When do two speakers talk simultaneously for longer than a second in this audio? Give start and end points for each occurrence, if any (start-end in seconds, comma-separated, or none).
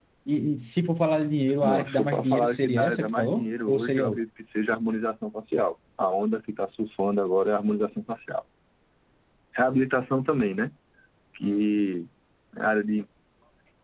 1.6-4.2